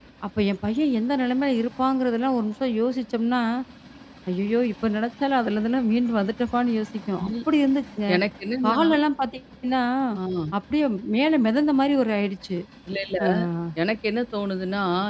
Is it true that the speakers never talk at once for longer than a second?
Yes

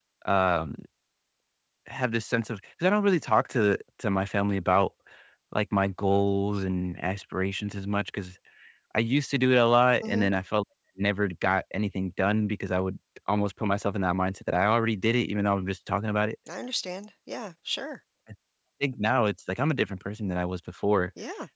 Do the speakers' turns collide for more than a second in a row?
No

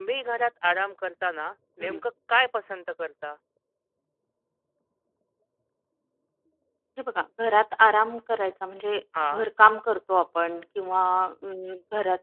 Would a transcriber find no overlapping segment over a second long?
Yes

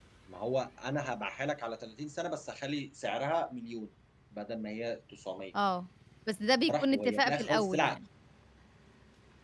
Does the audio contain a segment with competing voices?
Yes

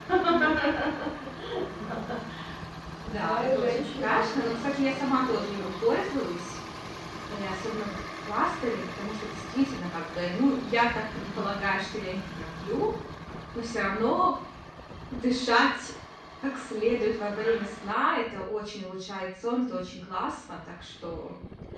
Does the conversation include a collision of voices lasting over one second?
Yes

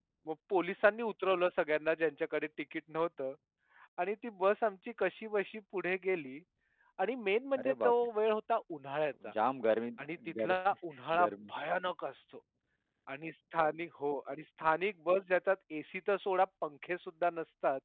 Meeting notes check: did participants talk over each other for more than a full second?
No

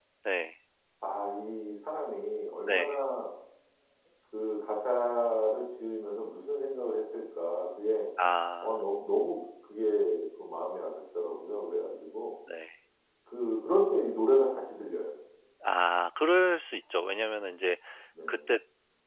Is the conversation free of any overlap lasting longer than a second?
Yes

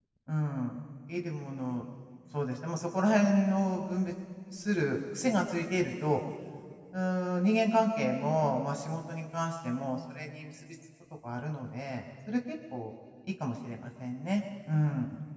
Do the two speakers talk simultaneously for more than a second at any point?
No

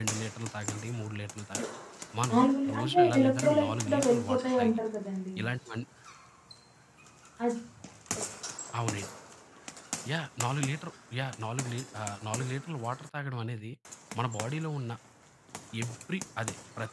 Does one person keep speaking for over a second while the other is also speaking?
Yes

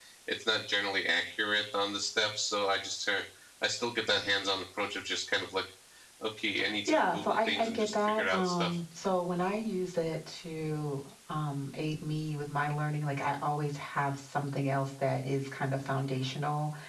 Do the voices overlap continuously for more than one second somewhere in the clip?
Yes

